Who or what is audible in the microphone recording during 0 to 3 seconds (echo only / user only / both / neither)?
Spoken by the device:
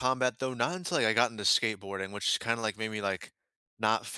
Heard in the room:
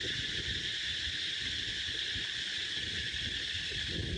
neither